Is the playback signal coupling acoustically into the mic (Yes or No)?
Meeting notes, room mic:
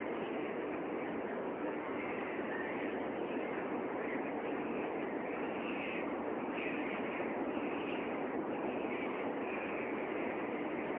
No